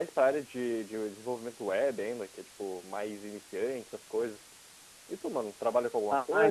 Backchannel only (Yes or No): No